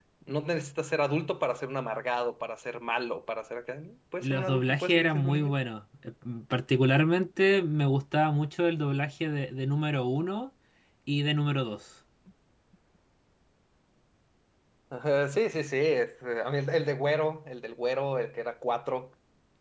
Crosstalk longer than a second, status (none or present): present